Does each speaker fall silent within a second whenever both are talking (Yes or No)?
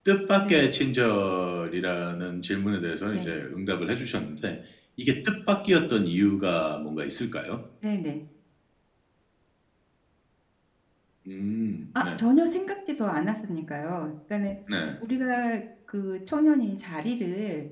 Yes